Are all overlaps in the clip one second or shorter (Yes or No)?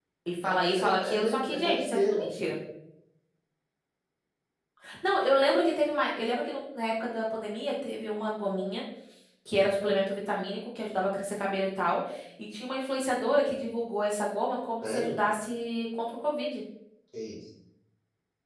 No